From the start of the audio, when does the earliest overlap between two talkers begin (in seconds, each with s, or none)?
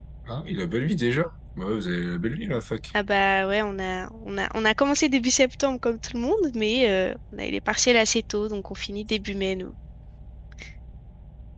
none